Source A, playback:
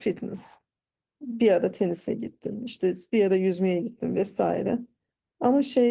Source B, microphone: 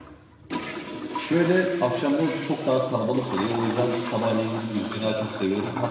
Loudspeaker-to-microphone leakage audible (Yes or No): No